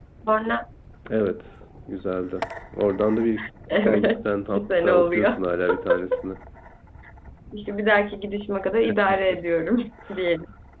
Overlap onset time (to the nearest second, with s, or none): 4 s